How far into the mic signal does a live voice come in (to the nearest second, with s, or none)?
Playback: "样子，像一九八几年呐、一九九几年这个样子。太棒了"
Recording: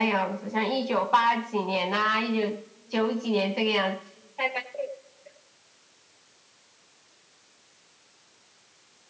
none